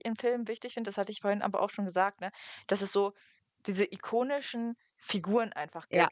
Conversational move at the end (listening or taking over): listening